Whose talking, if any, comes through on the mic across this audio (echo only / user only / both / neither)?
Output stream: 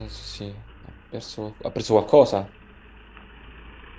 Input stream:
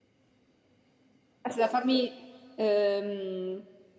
user only